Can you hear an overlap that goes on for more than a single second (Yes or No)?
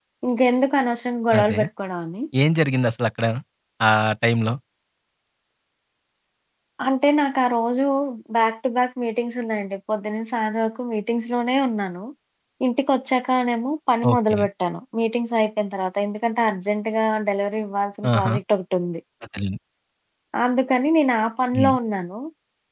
No